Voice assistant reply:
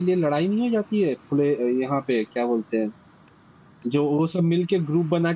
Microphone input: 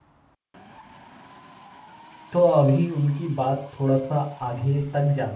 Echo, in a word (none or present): none